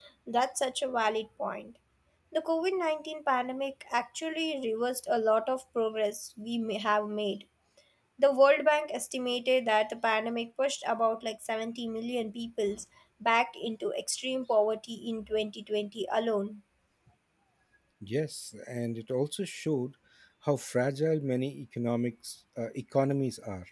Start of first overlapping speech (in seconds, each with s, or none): none